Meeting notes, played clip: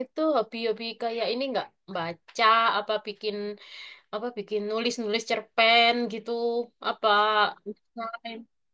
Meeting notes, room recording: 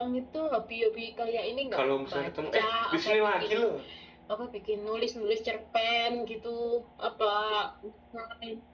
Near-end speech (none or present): present